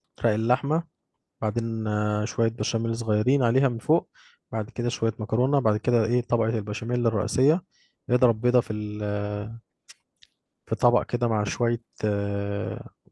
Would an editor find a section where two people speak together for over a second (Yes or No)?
No